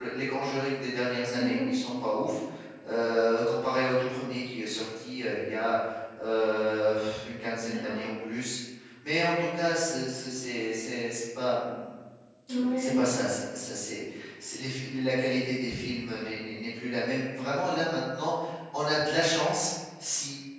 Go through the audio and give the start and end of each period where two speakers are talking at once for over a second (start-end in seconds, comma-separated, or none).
none